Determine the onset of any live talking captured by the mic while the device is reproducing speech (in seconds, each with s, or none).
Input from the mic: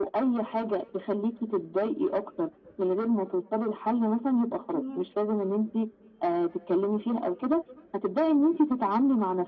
4.7 s